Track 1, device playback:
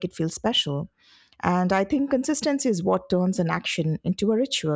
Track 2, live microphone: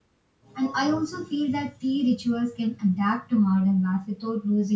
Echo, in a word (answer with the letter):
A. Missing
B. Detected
A